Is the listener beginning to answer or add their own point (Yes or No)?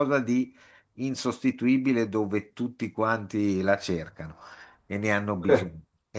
No